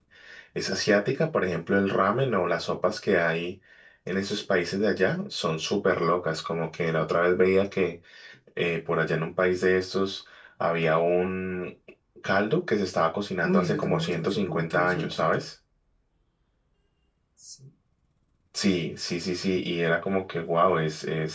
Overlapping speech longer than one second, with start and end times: 13.4-15.4

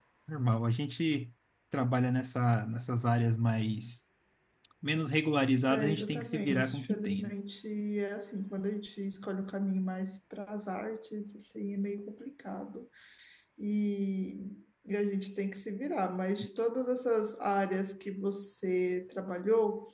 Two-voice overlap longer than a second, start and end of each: 5.7-7.3

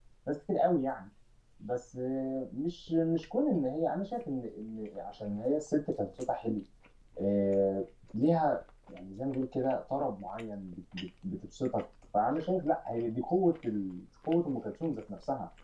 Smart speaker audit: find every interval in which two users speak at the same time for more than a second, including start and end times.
none

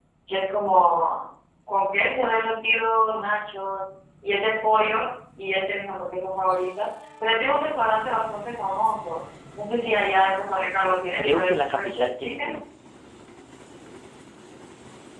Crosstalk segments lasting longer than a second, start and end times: 11.2-12.5

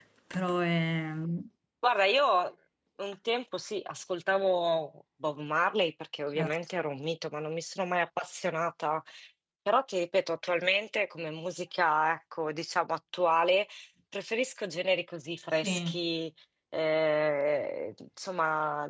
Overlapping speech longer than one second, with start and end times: none

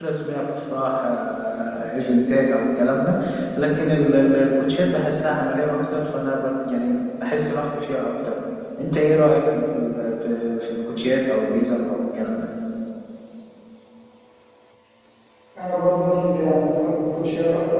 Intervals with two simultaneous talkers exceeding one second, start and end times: none

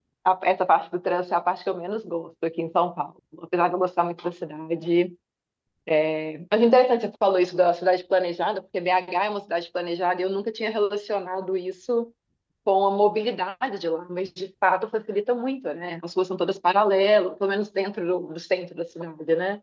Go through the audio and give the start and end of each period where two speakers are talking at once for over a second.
none

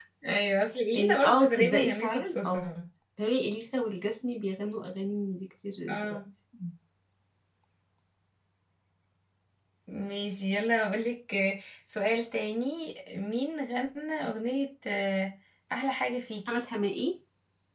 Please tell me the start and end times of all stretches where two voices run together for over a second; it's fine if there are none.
0.9-2.7

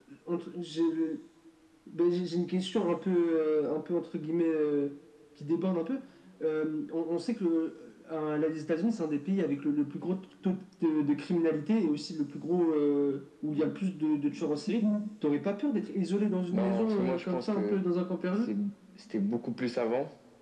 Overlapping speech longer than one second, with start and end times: 16.5-17.8

